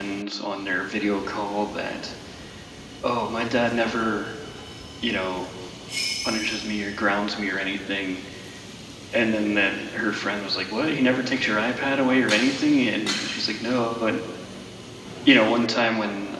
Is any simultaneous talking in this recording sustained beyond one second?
No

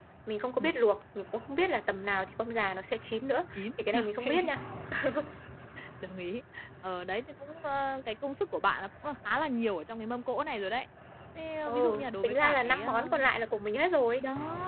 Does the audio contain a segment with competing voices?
Yes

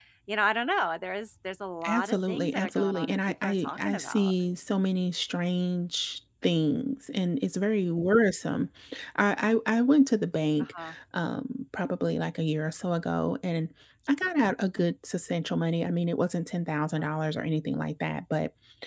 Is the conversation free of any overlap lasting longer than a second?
No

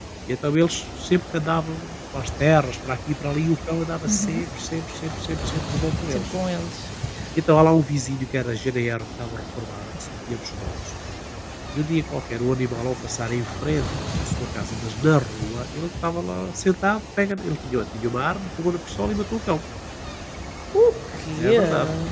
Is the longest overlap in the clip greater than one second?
No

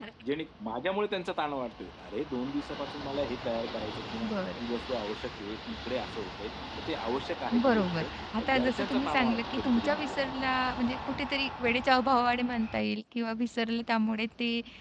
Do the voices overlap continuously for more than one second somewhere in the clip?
Yes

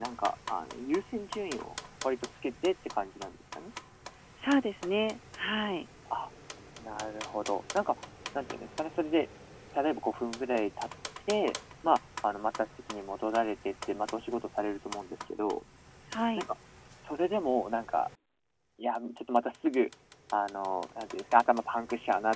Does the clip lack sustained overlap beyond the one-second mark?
Yes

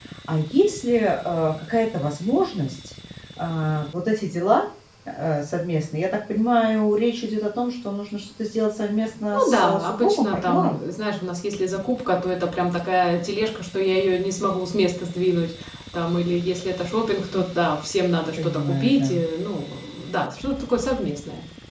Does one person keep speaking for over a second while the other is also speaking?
Yes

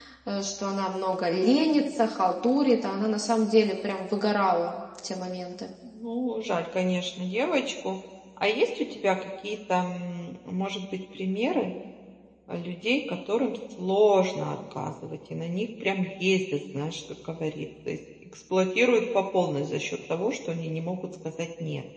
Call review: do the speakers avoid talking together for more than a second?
Yes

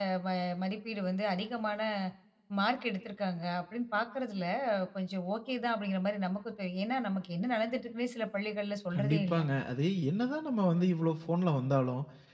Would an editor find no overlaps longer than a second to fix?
Yes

